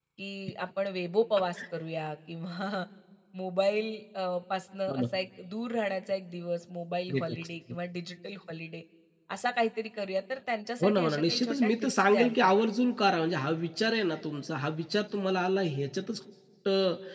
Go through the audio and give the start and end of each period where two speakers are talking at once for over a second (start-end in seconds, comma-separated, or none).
10.8-12.5